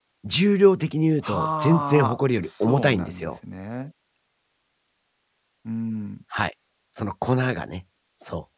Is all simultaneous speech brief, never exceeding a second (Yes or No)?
No